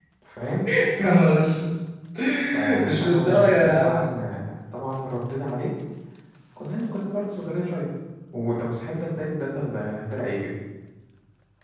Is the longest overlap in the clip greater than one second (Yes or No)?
Yes